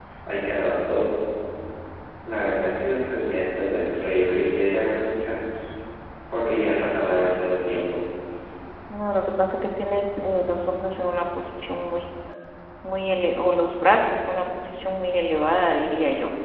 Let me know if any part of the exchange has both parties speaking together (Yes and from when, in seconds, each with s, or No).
No